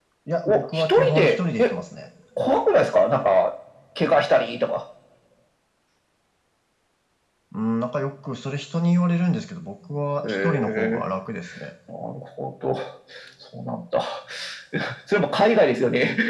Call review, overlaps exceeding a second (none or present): present